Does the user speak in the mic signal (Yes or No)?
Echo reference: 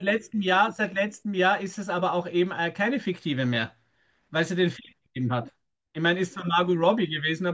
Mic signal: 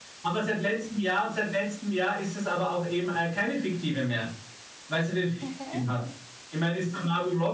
Yes